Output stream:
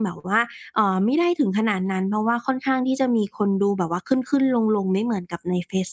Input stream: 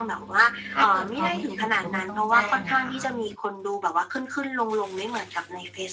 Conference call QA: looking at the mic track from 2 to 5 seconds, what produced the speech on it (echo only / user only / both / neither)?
both